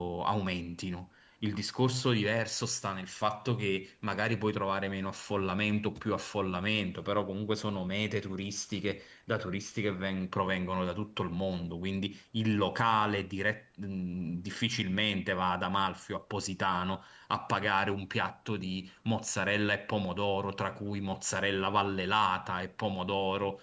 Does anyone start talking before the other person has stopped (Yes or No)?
No